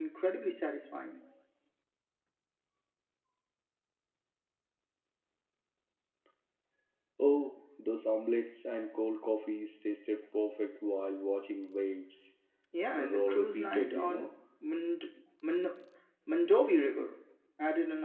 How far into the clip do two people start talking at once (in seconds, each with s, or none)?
13.0 s